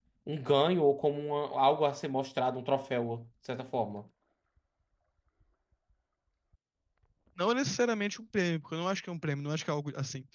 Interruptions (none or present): none